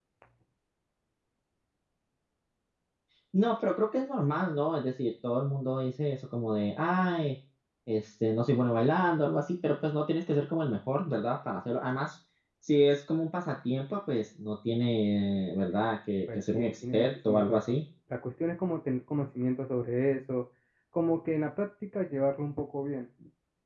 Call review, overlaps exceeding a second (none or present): present